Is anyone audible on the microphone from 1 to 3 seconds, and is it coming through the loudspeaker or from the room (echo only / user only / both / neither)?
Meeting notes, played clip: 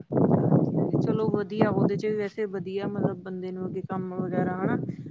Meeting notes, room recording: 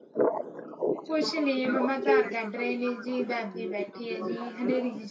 both